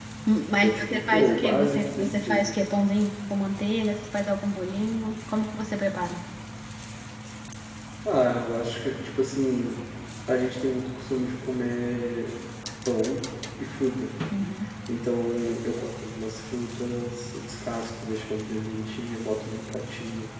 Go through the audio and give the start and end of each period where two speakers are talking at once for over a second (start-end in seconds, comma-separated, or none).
0.6-2.4